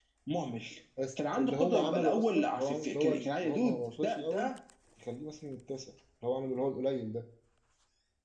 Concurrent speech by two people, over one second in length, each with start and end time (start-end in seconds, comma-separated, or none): 1.3-4.5